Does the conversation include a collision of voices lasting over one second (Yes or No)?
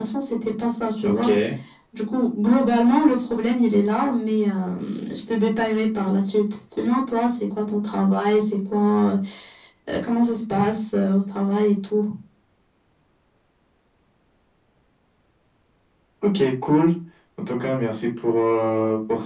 No